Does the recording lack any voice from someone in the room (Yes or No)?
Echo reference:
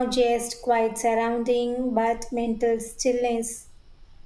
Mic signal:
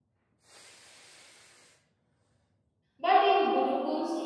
No